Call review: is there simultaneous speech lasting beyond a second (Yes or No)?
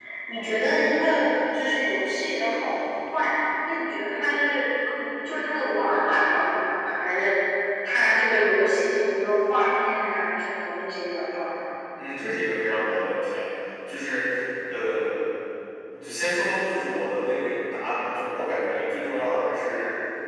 No